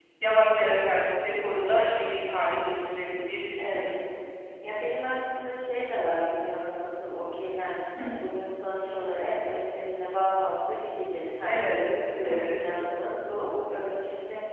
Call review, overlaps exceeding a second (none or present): none